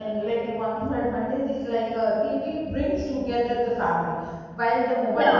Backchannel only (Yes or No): Yes